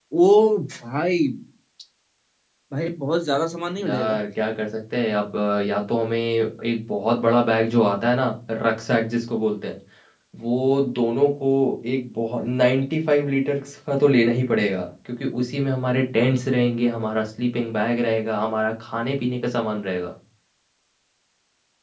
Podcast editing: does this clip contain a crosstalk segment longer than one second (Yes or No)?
No